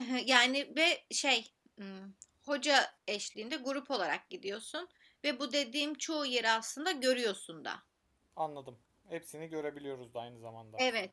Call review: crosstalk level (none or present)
none